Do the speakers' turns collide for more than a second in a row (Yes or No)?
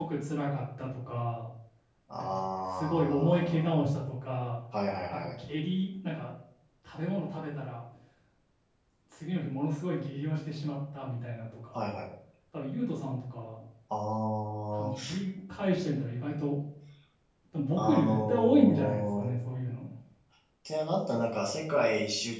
Yes